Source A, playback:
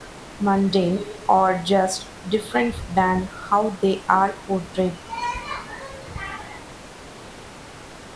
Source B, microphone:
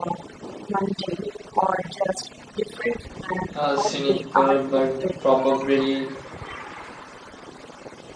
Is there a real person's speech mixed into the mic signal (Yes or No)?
Yes